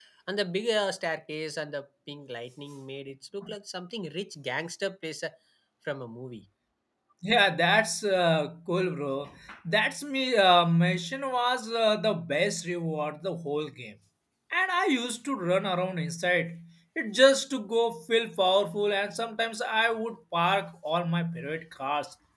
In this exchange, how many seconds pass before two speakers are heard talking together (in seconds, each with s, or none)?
none